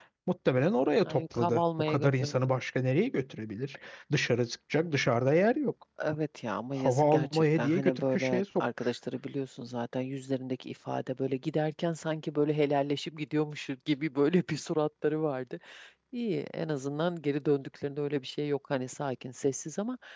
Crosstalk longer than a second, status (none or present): present